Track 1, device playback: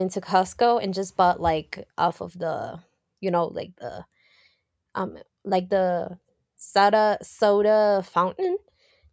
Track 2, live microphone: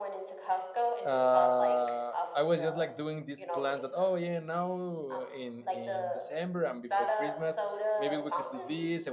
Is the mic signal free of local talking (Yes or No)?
No